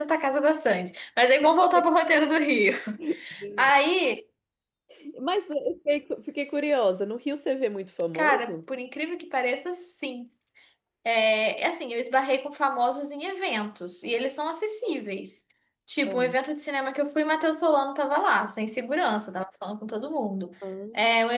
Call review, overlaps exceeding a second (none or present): none